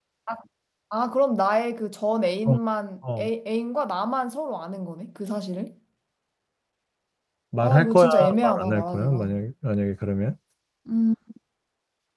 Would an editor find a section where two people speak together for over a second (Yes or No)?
Yes